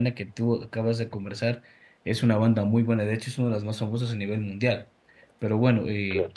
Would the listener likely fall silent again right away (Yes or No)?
Yes